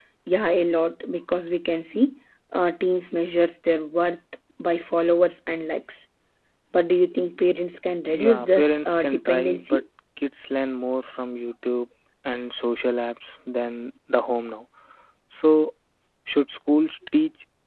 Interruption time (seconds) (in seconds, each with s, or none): 8.1 s